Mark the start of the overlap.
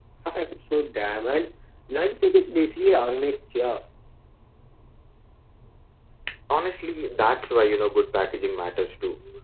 none

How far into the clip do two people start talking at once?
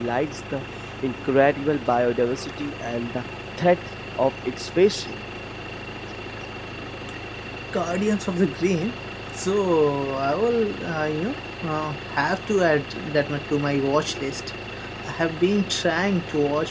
none

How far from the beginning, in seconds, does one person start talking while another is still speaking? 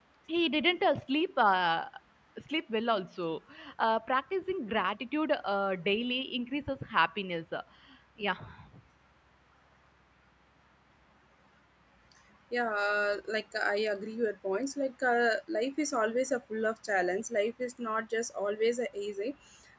none

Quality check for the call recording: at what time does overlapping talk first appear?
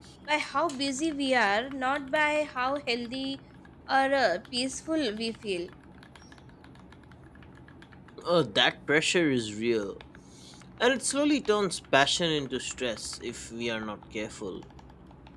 none

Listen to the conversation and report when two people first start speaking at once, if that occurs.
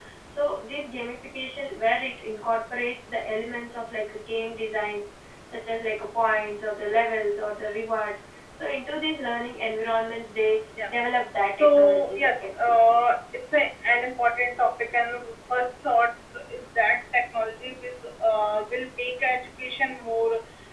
11 s

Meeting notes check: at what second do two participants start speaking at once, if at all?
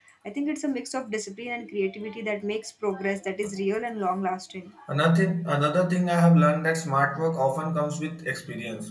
none

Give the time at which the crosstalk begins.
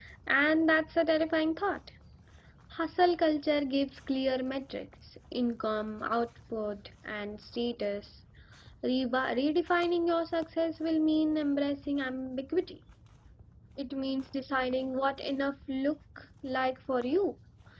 none

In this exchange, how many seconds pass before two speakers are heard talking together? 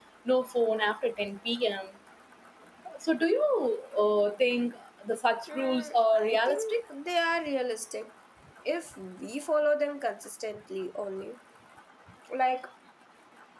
5 s

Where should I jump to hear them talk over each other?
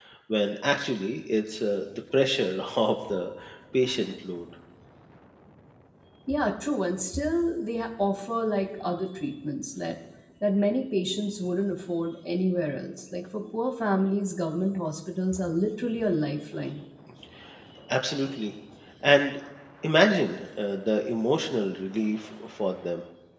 none

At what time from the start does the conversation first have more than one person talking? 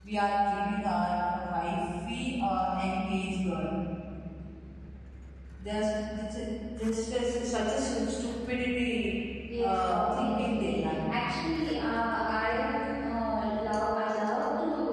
10 s

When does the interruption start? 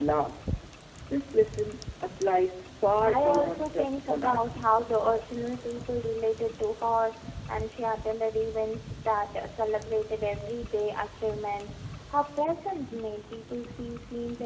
3 s

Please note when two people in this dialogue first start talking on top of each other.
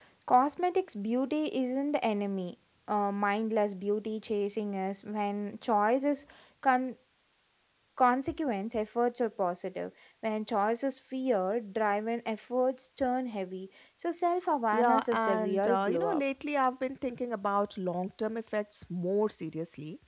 15 s

